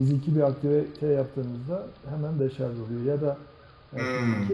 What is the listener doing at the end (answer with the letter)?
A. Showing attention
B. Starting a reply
A